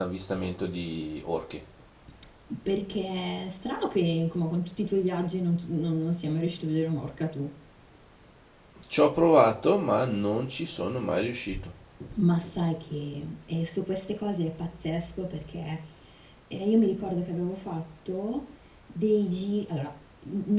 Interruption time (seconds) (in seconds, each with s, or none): none